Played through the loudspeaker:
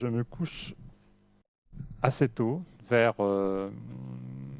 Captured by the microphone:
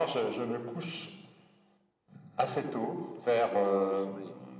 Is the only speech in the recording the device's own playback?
No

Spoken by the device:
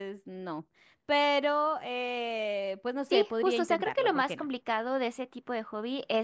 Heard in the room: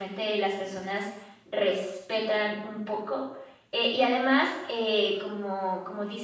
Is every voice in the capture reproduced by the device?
No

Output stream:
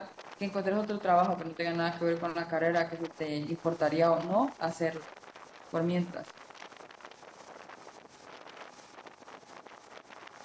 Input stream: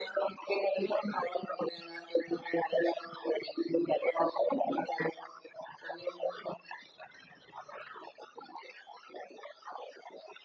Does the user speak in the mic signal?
No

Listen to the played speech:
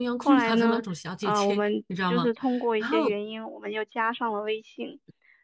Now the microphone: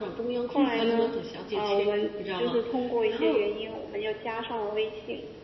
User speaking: No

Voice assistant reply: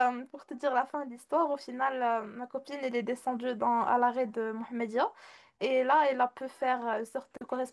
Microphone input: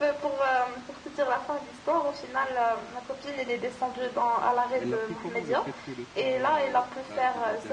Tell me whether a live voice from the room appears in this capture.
Yes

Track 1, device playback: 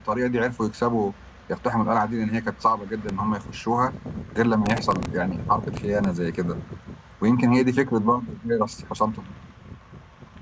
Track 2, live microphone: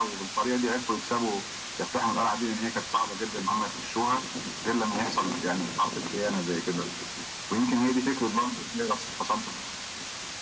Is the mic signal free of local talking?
Yes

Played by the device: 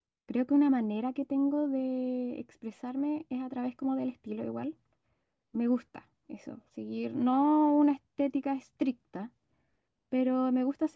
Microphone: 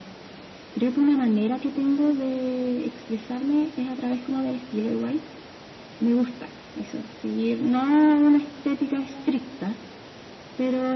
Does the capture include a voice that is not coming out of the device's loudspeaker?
No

